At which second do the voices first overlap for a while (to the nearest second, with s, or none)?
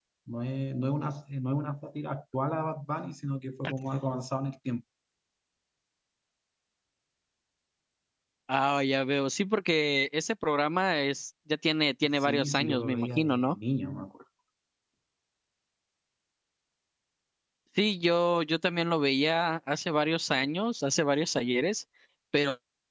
12 s